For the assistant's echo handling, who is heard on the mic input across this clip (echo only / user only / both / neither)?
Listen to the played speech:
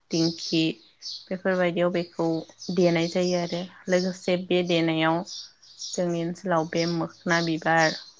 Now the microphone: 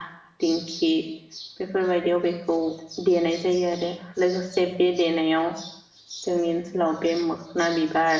echo only